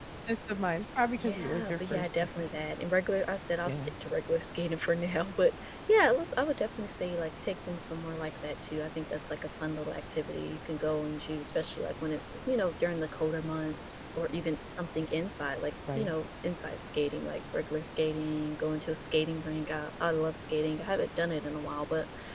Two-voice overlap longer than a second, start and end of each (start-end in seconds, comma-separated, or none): 1.2-2.6